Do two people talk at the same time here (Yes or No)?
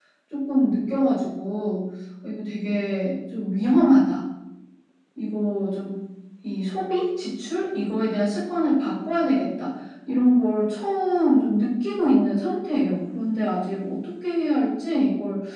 No